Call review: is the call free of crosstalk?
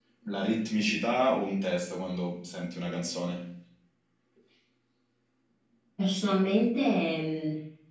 Yes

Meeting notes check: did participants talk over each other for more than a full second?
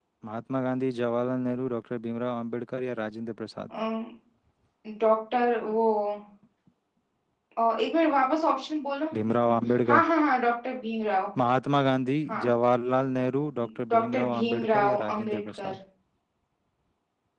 Yes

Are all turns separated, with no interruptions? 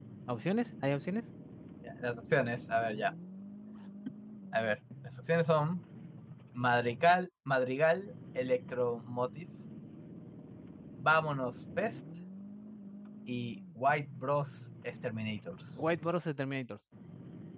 Yes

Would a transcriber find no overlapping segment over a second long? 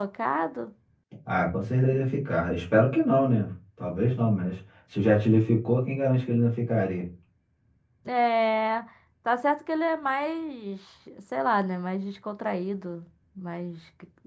Yes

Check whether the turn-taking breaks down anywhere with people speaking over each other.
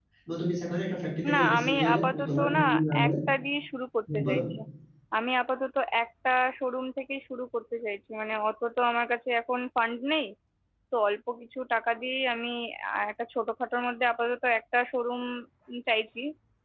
Yes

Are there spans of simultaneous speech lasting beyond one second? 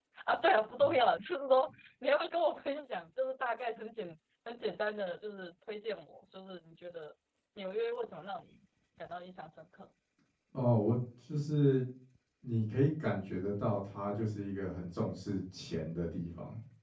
No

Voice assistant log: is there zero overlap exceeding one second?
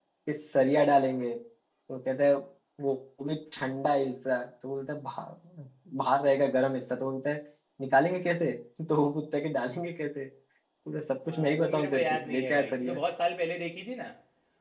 No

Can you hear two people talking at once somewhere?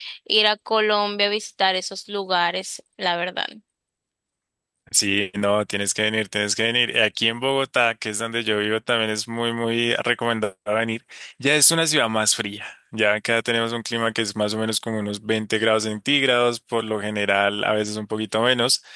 No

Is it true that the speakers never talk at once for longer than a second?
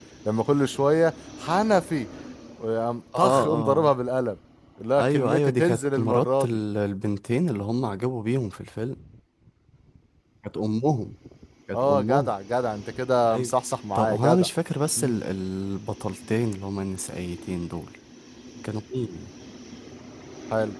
No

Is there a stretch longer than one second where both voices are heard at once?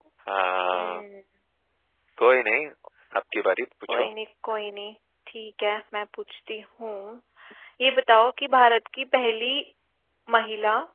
No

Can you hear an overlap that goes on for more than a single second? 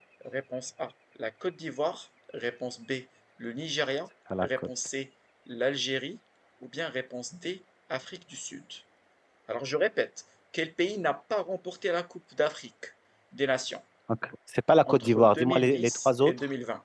Yes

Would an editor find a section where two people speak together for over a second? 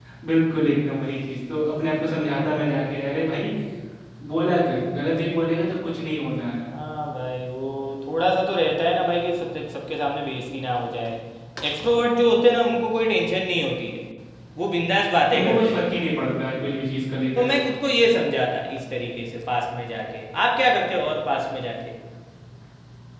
No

